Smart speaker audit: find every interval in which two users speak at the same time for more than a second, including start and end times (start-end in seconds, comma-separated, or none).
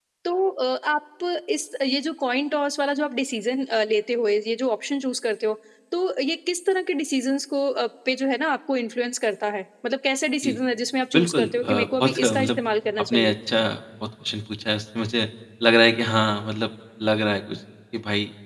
11.1-12.6